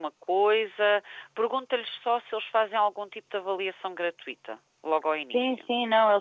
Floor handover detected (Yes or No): Yes